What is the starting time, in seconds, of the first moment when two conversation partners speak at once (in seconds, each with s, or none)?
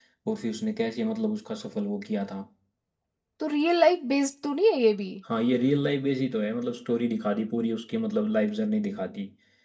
none